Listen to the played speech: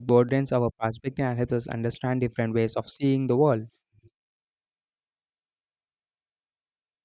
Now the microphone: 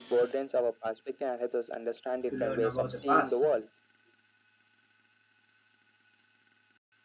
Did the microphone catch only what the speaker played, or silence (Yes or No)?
No